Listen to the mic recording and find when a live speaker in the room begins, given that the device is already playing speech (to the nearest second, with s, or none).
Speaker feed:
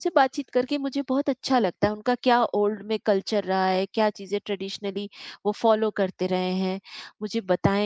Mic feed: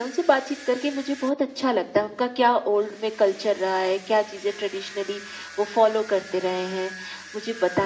none